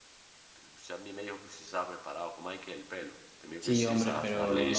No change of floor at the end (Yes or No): No